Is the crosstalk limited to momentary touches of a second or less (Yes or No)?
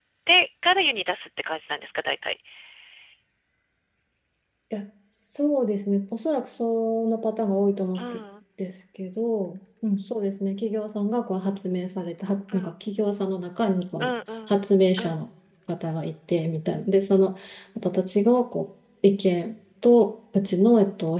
Yes